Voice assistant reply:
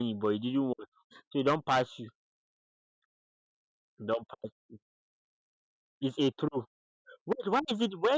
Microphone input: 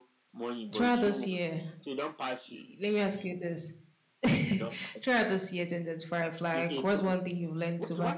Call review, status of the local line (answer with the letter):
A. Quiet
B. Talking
B